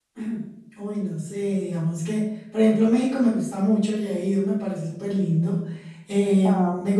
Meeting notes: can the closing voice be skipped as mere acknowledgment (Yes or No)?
Yes